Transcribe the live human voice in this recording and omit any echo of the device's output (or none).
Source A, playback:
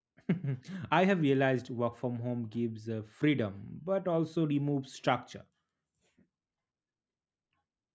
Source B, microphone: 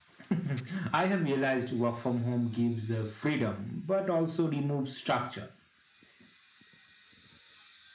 none